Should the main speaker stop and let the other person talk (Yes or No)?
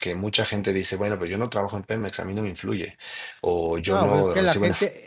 Yes